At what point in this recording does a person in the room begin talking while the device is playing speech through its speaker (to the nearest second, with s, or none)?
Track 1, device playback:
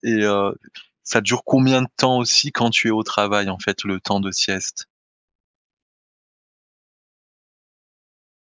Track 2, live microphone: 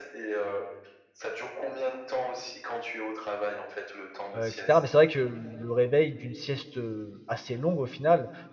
4 s